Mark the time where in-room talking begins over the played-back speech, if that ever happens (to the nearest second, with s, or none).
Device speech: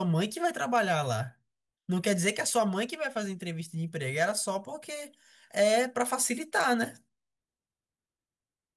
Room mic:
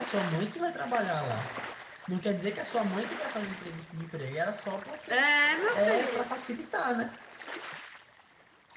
5 s